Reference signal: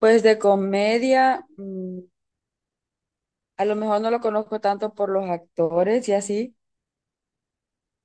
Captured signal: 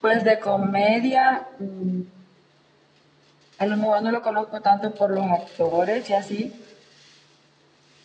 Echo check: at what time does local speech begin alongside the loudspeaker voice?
none

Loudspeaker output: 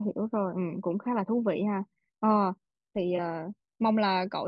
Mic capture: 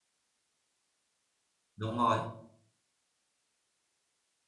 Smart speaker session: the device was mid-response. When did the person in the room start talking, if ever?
1.8 s

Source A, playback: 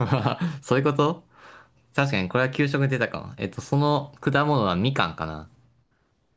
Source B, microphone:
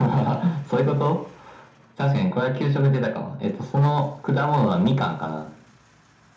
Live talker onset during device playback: none

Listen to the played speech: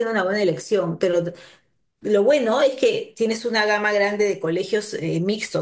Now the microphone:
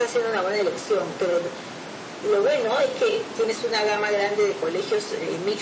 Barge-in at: none

